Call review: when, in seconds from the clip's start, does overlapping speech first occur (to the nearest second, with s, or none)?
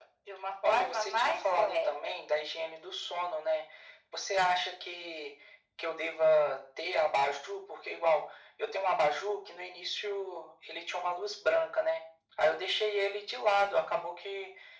1 s